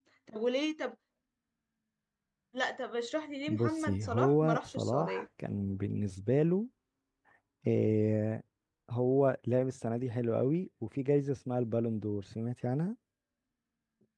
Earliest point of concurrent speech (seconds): 3.5 s

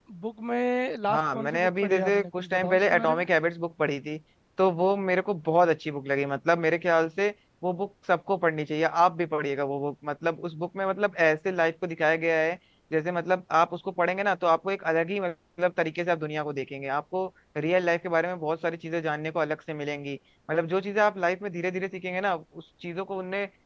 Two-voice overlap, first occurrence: 1.1 s

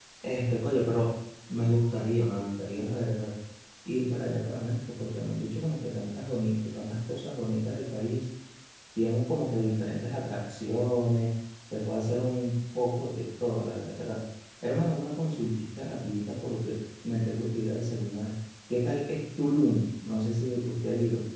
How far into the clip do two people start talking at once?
none

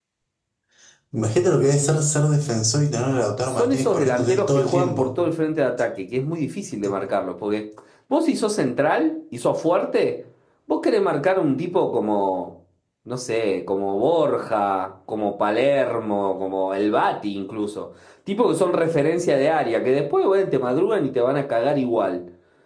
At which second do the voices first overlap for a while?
3.5 s

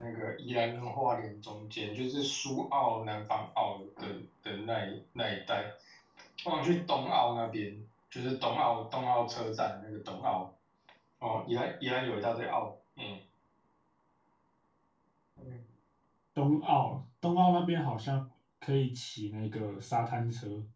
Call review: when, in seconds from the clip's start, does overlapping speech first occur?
none

